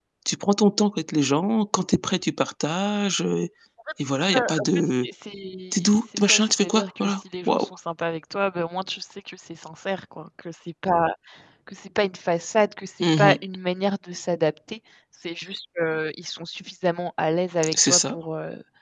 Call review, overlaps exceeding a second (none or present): present